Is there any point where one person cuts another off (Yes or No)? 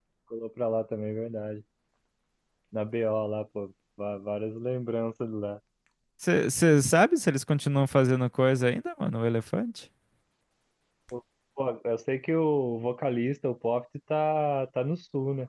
No